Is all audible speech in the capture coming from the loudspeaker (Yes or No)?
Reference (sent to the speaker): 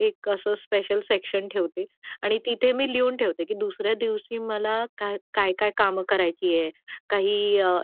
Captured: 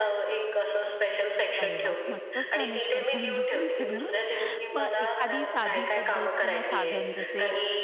No